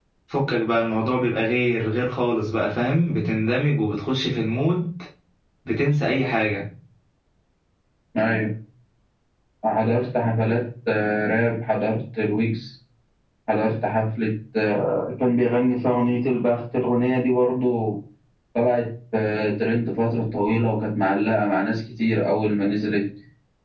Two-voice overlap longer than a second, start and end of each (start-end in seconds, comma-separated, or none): none